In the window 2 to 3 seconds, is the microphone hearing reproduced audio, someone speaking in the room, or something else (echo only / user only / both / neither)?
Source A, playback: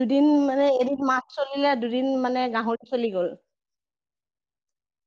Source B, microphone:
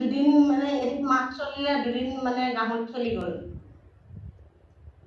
echo only